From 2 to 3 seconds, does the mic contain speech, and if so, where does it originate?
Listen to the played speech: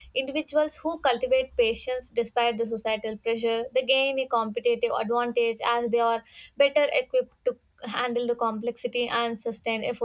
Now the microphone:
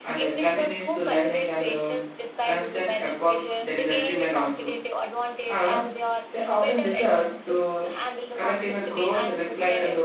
both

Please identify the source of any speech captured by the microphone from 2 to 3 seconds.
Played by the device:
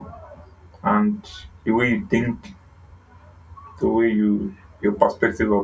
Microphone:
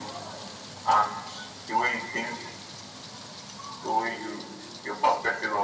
echo only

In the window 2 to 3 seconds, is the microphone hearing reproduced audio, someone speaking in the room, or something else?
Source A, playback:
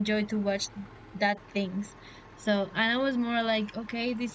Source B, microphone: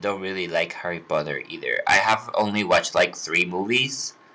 user only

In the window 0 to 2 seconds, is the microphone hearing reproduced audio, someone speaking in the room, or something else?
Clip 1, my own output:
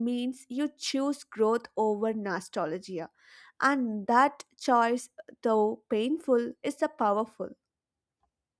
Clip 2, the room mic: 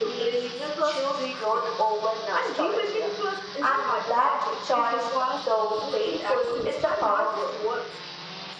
both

